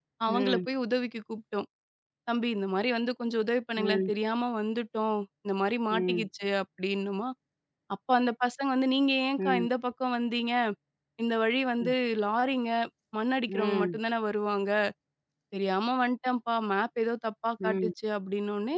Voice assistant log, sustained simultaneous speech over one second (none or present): none